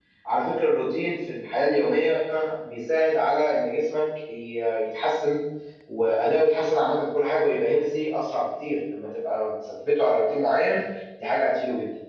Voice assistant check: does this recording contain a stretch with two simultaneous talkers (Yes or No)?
No